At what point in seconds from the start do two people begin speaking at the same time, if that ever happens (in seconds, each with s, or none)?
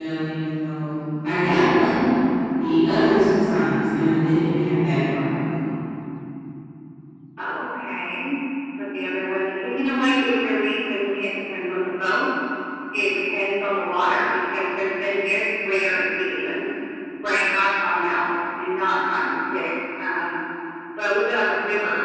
none